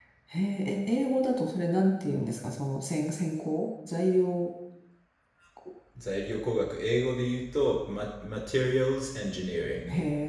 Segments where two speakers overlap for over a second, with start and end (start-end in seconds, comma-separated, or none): none